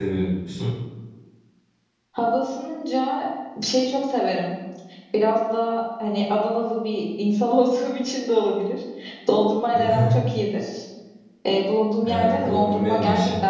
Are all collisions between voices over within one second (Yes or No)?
No